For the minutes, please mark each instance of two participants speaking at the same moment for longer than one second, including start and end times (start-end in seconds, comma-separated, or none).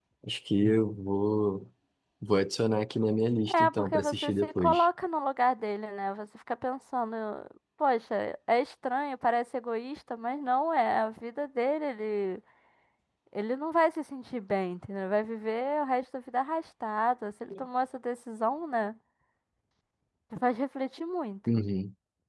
3.5-4.8